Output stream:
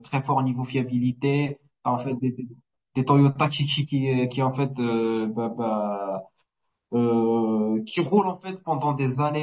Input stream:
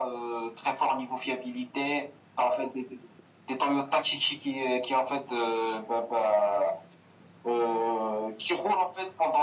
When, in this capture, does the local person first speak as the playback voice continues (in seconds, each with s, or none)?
none